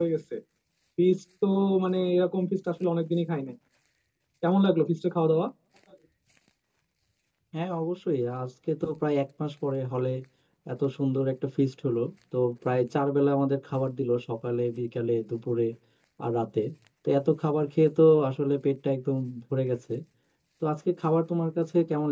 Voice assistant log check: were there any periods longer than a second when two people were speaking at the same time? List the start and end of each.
none

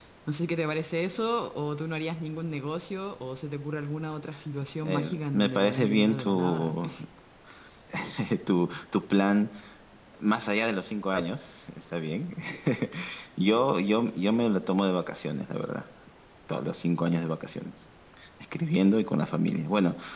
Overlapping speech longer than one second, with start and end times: 4.8-6.7

